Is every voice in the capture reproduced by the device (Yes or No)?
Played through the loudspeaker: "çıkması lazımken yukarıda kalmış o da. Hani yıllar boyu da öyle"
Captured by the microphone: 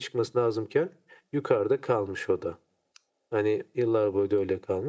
Yes